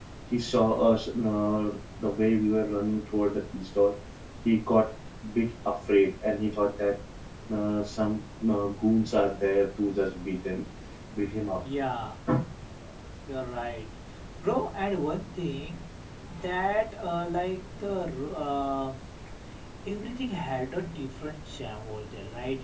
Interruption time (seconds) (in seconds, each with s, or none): none